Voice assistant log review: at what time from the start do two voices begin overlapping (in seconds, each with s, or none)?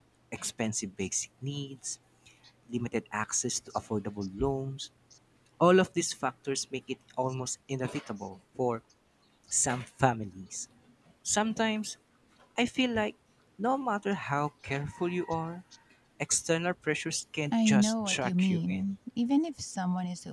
17.5 s